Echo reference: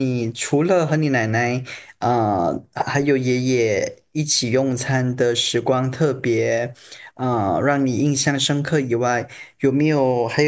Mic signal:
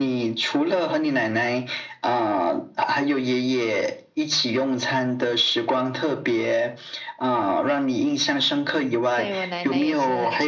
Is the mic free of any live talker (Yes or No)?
No